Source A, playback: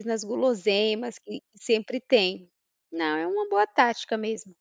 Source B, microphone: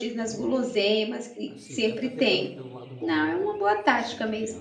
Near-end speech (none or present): present